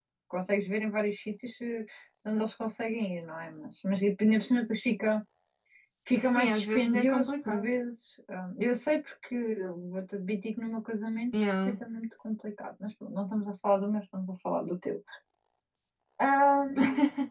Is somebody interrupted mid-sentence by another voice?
Yes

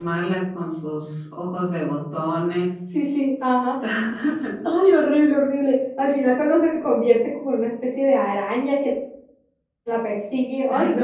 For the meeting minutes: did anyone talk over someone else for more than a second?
No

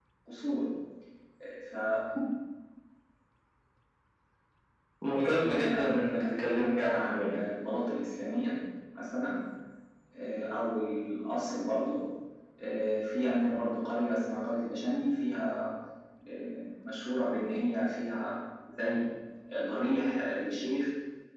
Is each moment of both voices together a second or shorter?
No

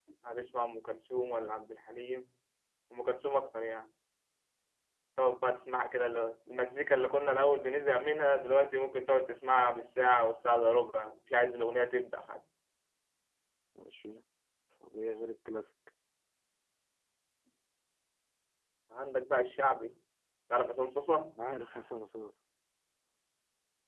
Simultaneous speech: No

